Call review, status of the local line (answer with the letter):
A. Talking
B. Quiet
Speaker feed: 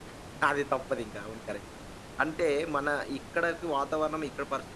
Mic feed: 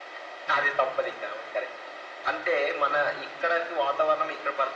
B